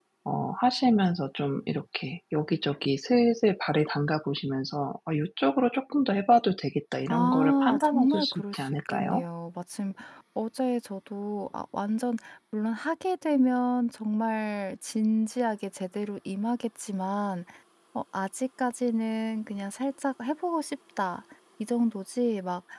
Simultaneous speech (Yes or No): Yes